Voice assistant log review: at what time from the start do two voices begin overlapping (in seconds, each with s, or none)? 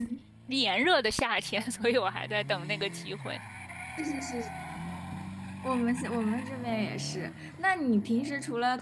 none